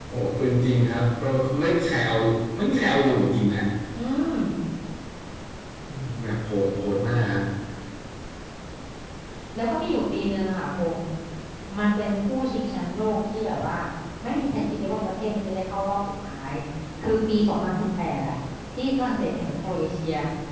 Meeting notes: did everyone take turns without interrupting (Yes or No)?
Yes